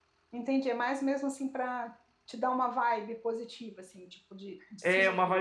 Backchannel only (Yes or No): No